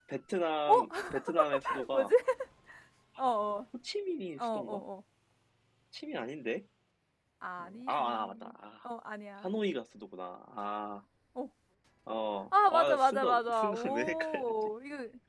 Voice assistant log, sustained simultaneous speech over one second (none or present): present